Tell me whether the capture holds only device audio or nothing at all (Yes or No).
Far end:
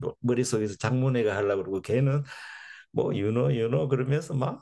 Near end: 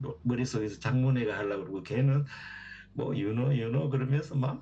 Yes